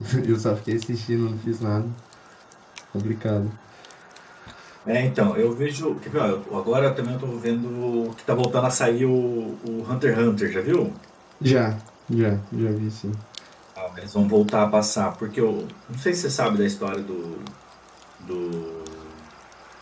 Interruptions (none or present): none